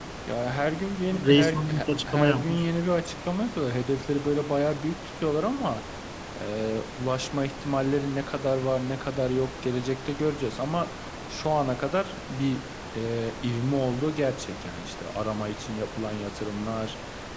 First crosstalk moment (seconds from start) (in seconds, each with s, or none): 1.1 s